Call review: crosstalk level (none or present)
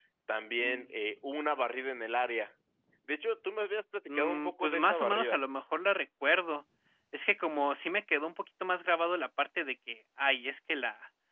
present